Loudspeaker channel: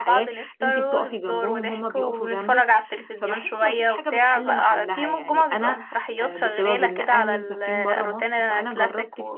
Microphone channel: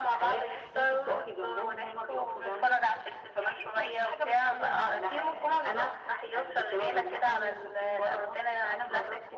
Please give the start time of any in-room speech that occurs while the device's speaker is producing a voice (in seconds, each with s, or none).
none